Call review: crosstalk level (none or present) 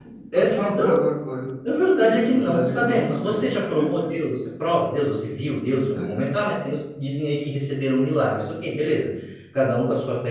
present